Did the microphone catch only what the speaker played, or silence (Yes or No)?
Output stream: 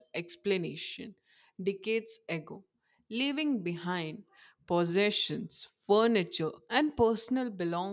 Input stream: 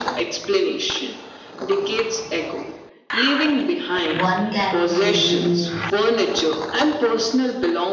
No